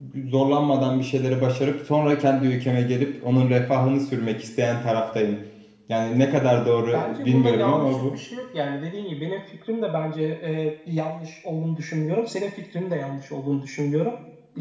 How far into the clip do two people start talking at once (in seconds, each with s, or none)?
6.9 s